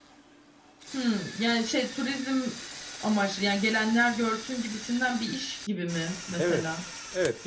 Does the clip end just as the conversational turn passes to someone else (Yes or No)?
Yes